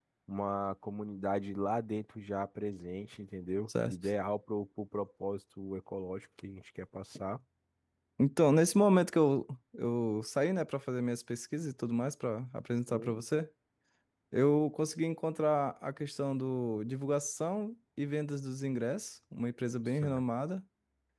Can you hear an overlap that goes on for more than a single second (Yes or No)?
No